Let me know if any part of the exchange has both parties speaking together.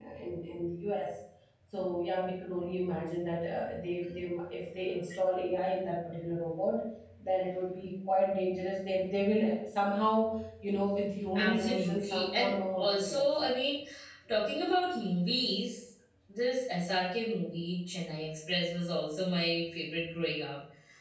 Yes, from 11.3 s

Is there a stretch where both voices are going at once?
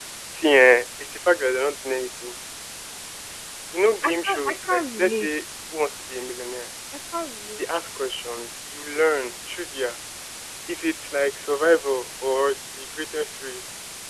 Yes, from 4.0 s

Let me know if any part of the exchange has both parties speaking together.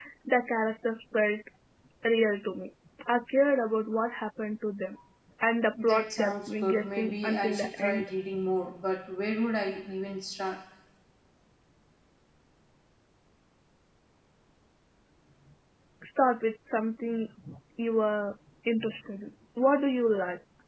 Yes, from 5.8 s

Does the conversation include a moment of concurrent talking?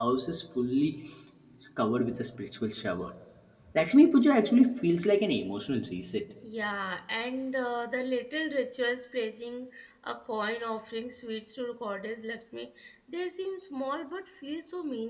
No

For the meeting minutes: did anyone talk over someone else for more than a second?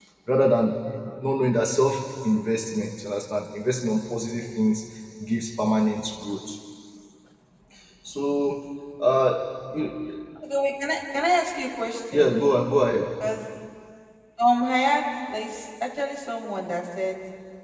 No

